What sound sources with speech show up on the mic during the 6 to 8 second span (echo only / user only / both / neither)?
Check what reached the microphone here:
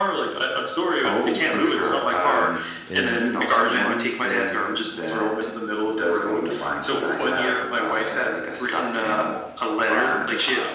echo only